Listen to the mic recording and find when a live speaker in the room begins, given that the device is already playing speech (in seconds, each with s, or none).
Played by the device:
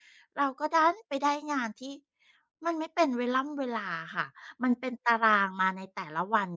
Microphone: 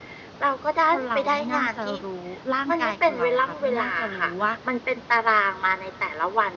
0.9 s